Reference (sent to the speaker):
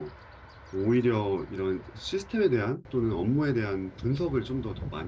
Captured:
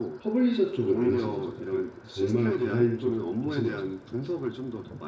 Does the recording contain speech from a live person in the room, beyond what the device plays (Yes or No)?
Yes